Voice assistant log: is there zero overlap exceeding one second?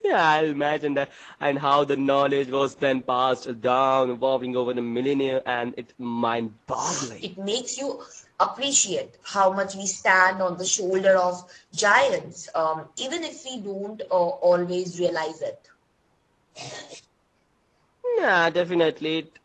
Yes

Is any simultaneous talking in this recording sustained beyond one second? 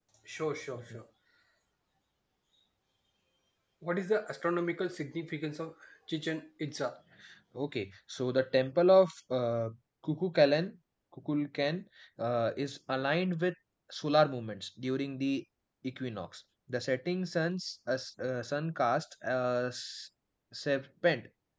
No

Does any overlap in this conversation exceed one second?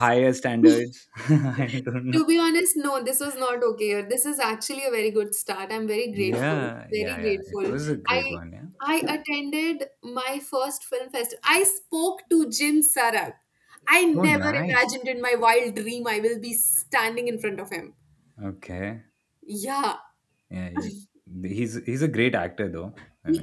Yes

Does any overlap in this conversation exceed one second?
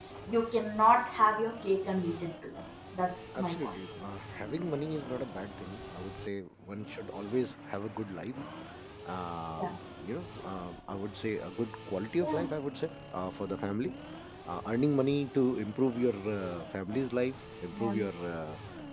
No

